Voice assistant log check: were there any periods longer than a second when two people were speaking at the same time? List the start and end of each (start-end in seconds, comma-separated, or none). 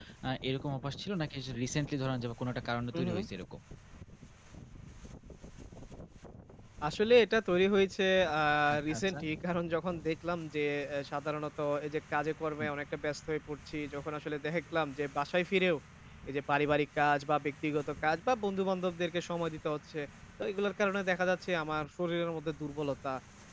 none